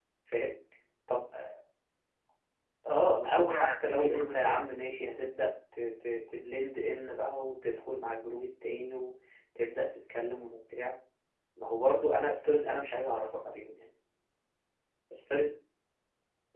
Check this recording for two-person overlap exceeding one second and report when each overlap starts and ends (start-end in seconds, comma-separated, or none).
3.1-4.7